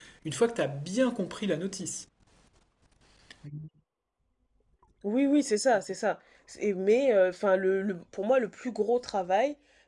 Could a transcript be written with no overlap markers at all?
Yes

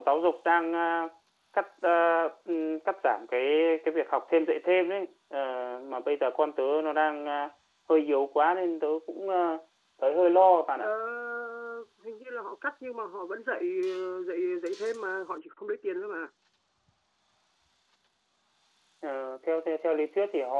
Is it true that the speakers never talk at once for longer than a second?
Yes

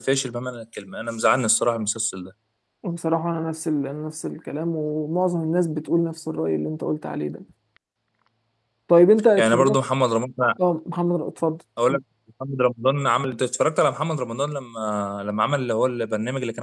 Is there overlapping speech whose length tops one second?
No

